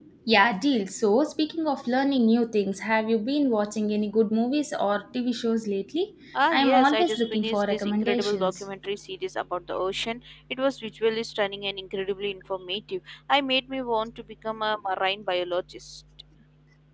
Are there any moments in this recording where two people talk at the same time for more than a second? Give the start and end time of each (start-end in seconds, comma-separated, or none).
6.5-8.6